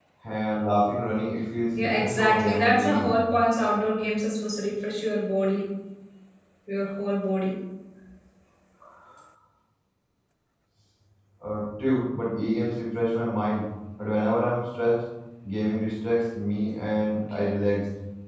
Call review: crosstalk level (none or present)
present